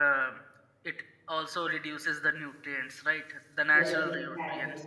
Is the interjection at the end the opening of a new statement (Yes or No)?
Yes